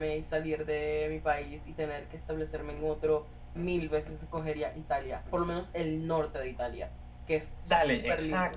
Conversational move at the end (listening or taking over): taking over